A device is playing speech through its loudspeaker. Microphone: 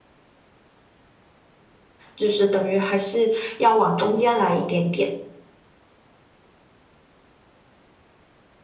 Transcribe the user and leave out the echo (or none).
就是等于还是要往中间来一点点。